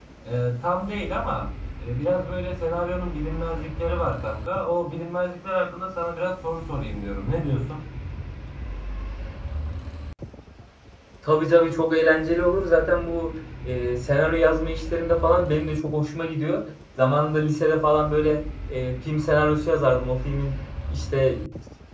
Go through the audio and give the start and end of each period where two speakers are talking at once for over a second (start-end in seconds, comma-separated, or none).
none